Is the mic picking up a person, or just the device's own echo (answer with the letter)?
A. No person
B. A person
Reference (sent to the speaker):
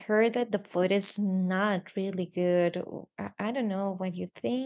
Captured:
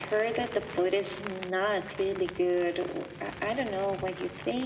A